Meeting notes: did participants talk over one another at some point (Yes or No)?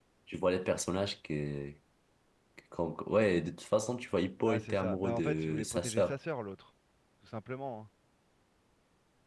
Yes